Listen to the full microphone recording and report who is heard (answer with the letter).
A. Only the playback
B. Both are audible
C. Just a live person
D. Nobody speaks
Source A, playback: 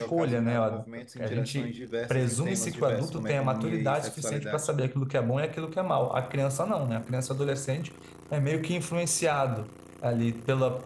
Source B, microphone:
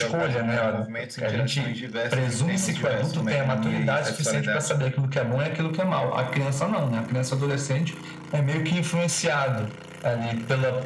A